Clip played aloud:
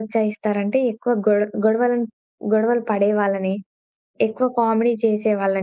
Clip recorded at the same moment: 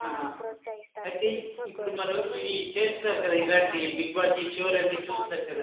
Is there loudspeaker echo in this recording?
Yes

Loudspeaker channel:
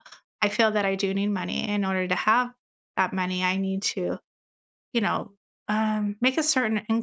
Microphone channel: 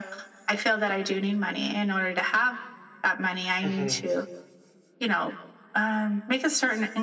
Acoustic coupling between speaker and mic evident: Yes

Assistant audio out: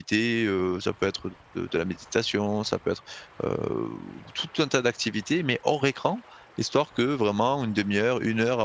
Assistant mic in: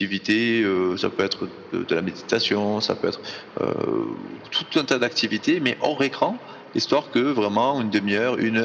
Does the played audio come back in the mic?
Yes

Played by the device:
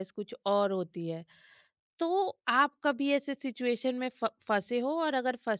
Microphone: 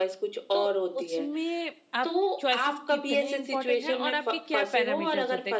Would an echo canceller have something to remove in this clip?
Yes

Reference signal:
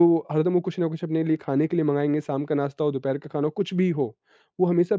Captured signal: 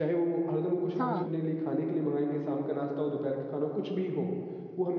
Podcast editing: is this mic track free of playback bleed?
No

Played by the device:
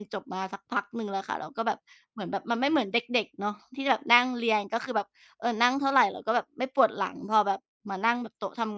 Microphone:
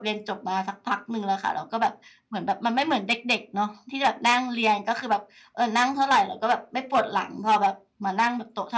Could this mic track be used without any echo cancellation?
No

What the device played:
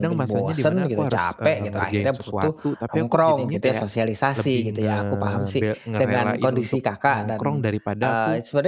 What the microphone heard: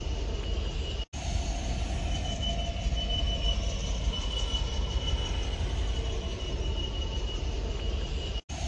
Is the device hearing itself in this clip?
No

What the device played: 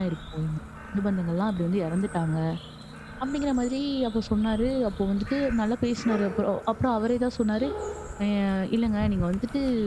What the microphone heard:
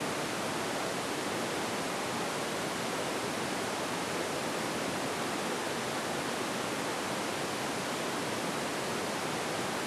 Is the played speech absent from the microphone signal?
Yes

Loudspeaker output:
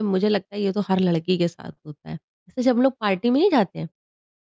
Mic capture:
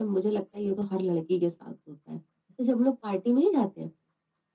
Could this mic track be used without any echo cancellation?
No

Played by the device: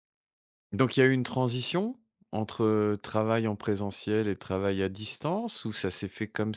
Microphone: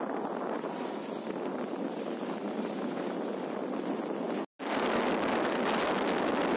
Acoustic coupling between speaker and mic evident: No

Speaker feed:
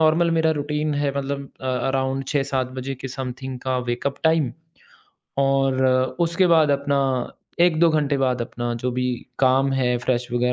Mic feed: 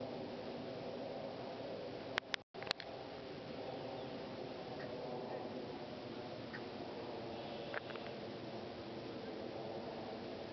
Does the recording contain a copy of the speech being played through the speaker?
No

